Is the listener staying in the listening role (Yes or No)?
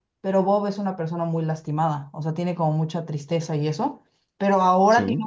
Yes